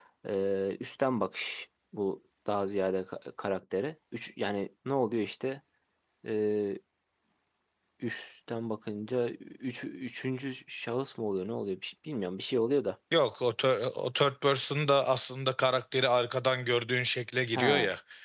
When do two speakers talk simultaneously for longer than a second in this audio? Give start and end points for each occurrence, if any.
none

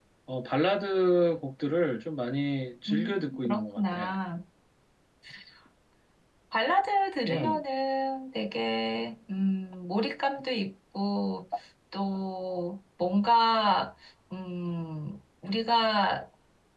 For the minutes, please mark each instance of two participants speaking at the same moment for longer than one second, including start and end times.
2.9-4.2

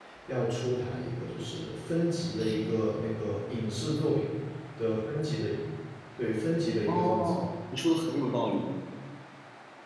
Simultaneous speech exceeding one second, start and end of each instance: none

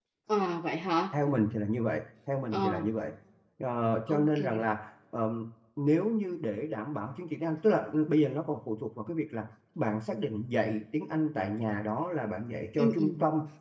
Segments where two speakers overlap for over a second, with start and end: none

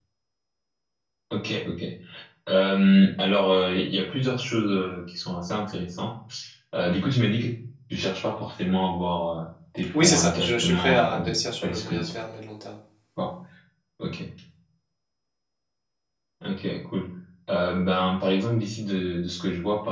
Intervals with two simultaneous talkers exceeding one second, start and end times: 9.9-12.1

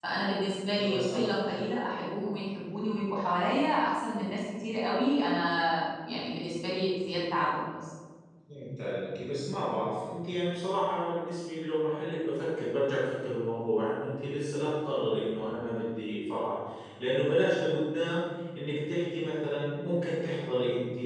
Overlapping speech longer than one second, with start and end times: none

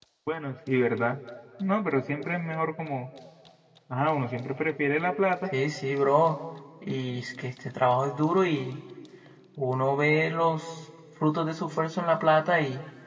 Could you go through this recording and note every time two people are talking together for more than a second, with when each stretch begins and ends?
none

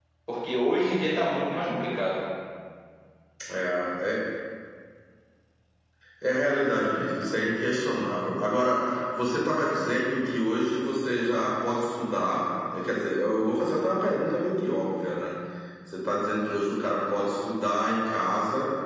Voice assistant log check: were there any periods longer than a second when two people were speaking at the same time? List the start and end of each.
none

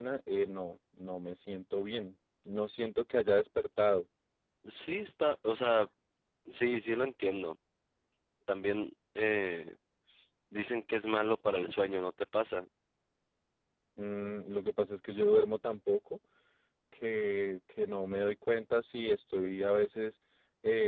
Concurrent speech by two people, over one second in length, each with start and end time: none

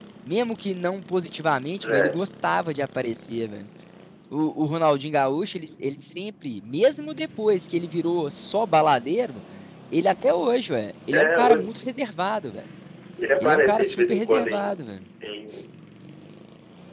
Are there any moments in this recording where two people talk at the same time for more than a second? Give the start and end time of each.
13.4-14.8

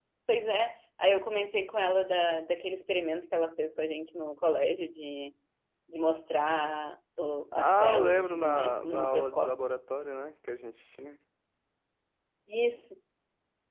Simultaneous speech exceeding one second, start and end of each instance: 7.5-9.5

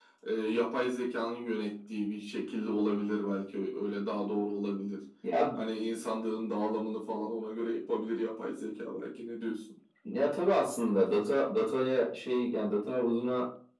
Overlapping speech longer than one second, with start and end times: none

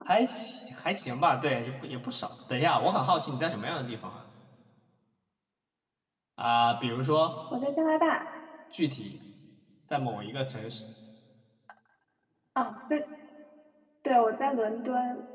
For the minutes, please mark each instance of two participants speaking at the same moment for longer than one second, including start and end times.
none

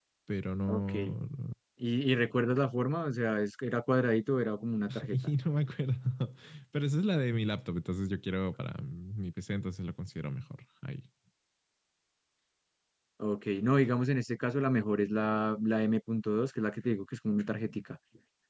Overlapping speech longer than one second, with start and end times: none

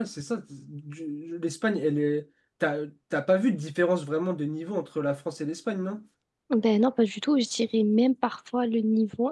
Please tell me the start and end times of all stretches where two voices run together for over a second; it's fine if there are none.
none

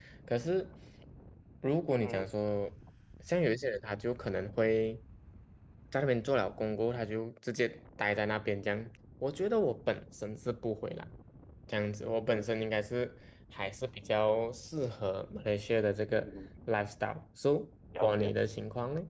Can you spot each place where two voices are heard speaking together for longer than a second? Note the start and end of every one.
none

